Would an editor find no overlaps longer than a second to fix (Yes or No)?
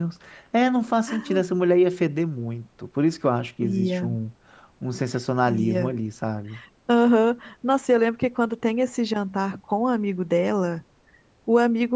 Yes